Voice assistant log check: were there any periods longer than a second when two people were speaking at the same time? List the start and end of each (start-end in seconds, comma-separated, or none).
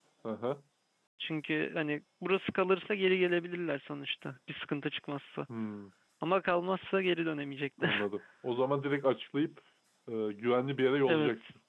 none